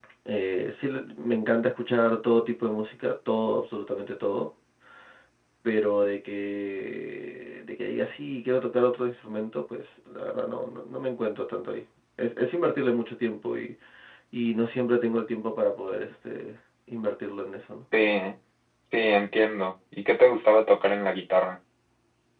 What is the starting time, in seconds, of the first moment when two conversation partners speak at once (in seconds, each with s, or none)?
none